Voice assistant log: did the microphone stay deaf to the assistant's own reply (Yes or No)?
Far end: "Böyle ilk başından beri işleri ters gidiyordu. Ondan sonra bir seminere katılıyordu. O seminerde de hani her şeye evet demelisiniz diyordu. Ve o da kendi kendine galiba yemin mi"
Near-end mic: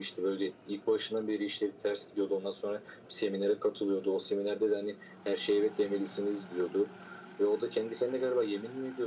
No